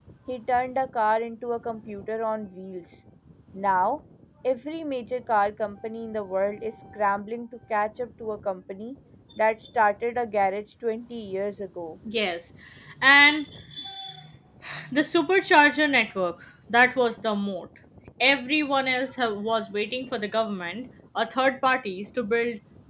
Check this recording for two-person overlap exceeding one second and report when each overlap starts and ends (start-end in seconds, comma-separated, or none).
none